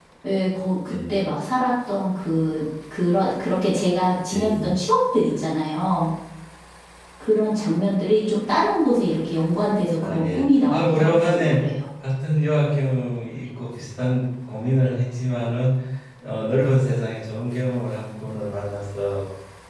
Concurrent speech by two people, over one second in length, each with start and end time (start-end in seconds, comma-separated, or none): 10.0-11.6